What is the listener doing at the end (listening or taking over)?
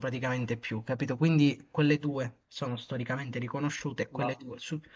listening